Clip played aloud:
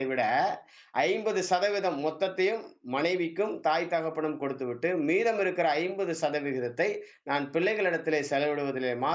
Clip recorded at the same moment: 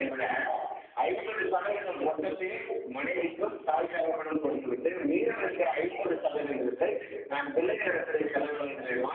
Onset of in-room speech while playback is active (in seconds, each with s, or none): none